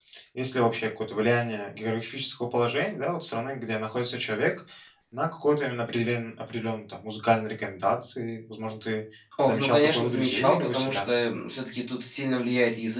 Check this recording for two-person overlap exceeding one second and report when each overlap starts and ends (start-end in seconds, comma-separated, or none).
9.4-11.1